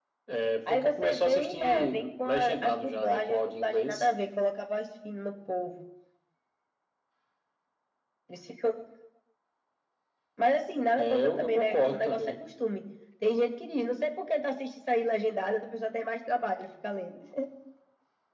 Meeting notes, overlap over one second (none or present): present